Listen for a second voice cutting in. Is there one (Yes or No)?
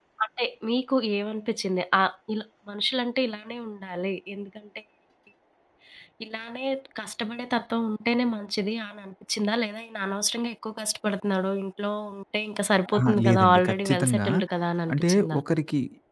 Yes